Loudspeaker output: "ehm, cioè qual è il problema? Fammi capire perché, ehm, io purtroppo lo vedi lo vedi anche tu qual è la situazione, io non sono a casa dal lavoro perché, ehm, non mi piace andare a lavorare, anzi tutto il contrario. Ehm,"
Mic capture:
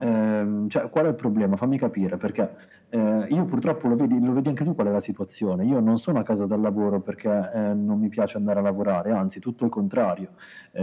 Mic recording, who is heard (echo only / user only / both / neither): echo only